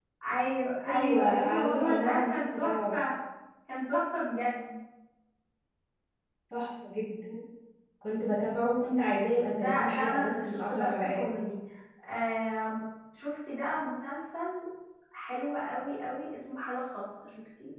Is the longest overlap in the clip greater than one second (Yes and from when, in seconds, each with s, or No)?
Yes, from 0.9 s